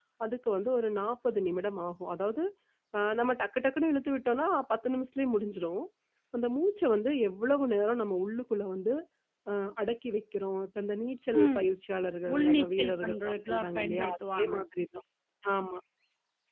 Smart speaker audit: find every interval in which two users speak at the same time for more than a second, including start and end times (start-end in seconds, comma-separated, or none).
12.3-14.5